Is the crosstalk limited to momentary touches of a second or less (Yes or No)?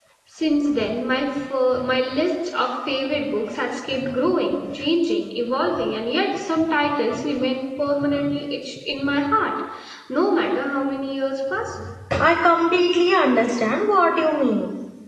Yes